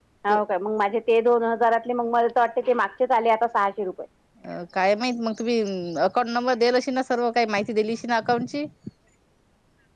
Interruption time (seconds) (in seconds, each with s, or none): none